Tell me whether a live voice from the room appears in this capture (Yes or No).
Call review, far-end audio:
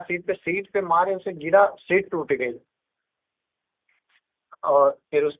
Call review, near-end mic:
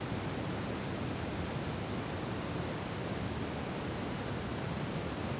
No